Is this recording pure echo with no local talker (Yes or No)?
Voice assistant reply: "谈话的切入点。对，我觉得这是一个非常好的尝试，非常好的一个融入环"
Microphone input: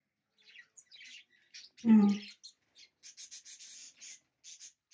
No